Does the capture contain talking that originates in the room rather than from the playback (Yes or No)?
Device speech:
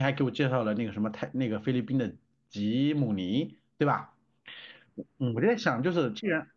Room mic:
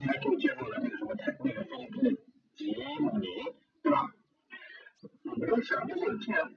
No